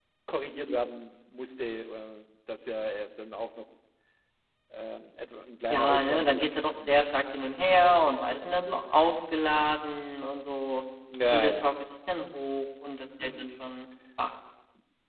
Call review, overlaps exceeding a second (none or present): present